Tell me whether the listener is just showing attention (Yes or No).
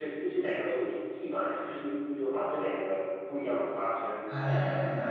No